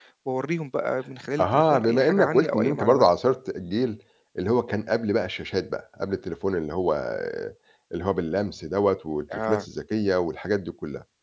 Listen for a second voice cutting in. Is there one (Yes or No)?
Yes